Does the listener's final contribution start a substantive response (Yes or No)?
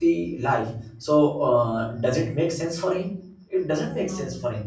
No